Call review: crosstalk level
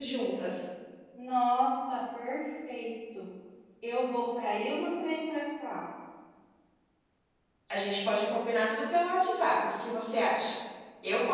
none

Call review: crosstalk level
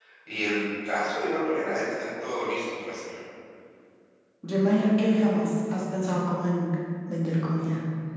none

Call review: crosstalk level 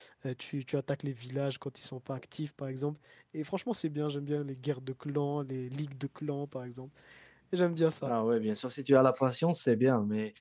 none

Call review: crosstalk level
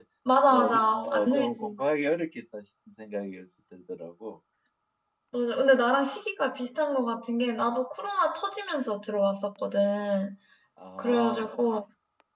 present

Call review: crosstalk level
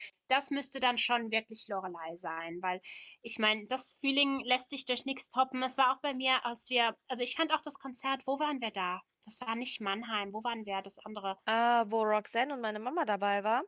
none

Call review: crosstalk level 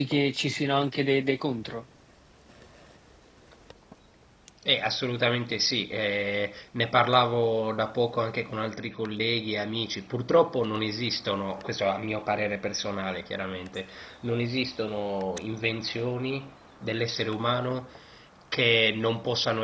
none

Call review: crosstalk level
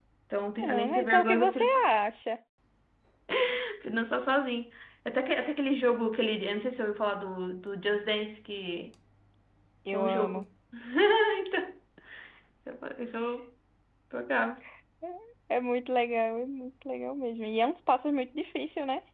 present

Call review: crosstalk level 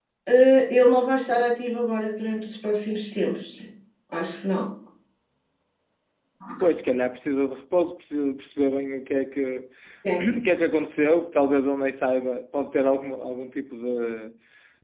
none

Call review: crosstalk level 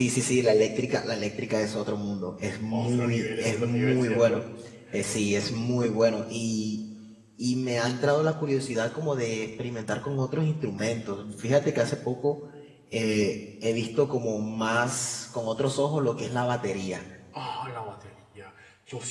present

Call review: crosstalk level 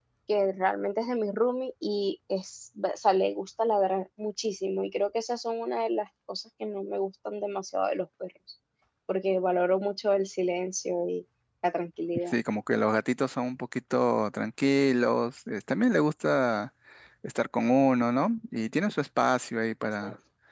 none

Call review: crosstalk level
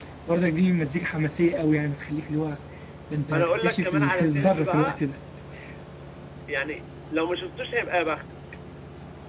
present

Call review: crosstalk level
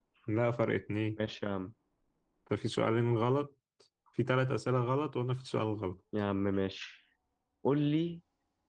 none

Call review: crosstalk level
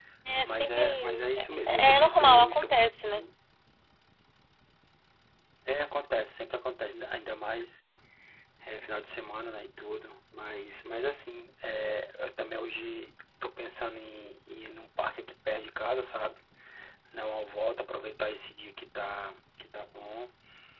present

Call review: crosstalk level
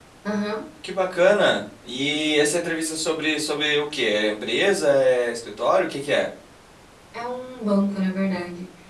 none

